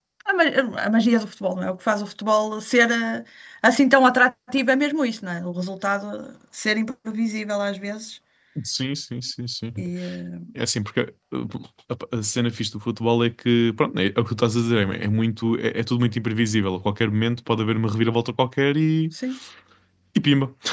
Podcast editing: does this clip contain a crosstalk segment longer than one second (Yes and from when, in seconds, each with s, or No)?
No